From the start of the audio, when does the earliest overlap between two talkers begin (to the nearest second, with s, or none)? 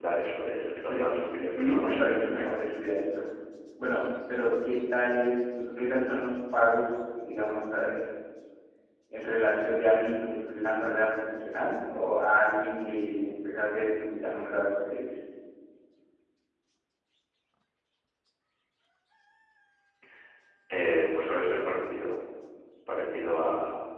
1 s